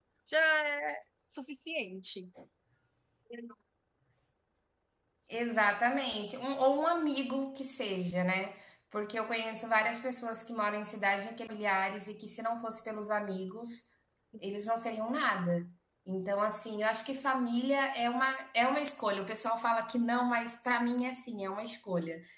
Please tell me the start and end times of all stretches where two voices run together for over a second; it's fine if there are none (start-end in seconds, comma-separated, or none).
none